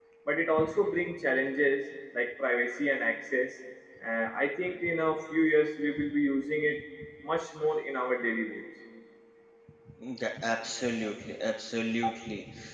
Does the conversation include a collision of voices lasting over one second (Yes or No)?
No